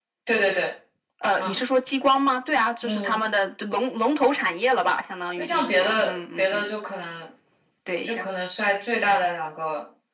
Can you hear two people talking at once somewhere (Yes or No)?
Yes